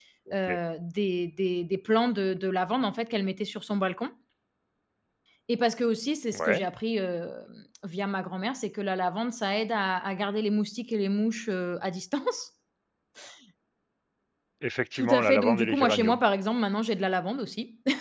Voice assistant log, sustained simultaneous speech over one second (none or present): present